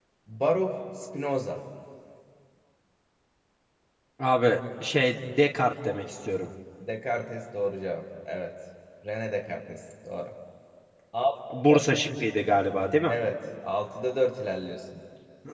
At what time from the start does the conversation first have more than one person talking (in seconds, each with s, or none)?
none